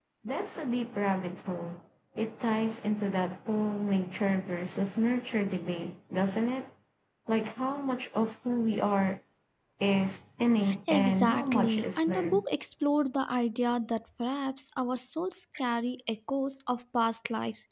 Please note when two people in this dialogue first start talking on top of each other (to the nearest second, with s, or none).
11 s